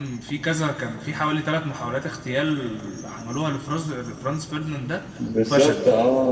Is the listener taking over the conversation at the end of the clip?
Yes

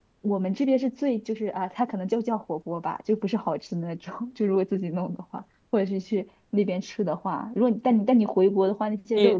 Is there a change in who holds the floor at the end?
Yes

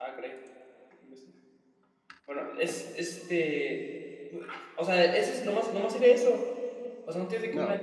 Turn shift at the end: No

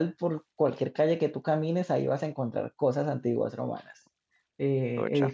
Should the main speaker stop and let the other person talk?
No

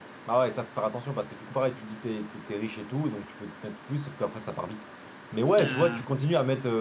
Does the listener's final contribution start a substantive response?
No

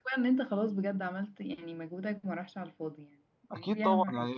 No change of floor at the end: No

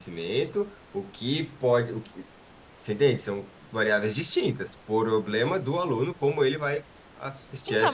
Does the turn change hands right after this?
Yes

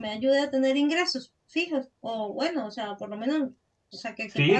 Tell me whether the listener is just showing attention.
No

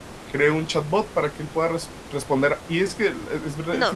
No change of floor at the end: No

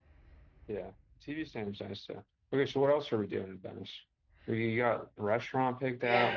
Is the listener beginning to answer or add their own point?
Yes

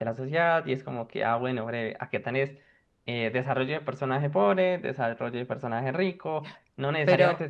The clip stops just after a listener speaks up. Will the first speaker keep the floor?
Yes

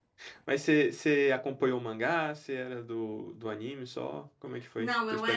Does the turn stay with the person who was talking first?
No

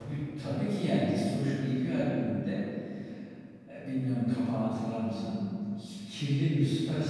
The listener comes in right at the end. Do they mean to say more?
No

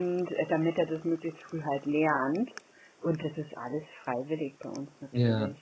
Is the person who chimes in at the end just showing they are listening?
No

